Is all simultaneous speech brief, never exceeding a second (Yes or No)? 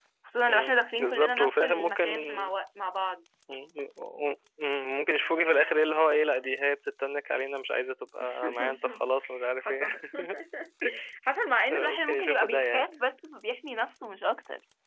No